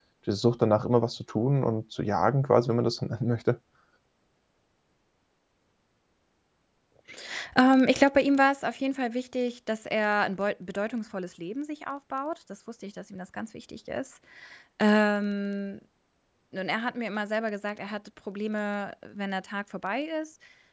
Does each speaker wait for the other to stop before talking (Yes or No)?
Yes